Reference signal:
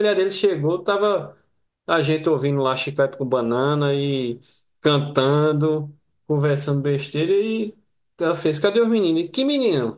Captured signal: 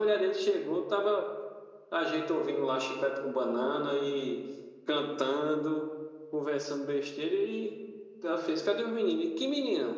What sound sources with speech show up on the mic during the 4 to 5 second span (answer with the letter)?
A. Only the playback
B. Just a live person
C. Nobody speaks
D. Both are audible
A